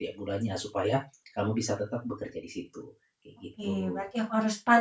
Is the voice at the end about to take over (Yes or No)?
Yes